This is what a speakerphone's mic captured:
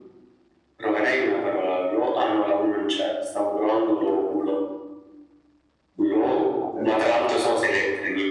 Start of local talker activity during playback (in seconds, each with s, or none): none